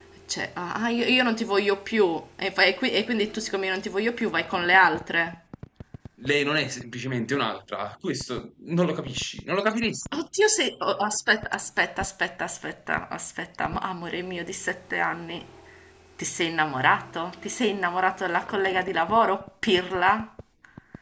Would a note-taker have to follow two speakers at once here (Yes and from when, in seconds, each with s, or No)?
No